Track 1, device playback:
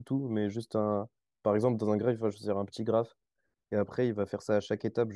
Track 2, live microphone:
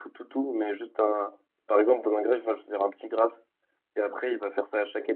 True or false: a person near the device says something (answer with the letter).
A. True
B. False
B